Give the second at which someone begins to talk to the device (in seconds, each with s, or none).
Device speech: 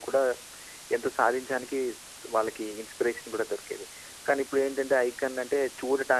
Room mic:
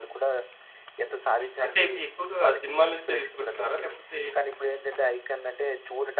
1.6 s